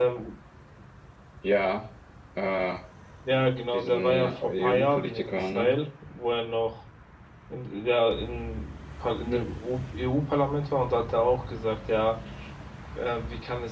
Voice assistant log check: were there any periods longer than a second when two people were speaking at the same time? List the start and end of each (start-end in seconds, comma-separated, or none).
3.7-5.8